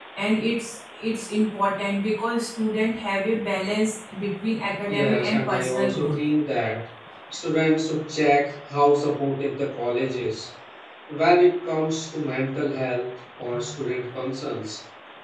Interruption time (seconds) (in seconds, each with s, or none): 4.9 s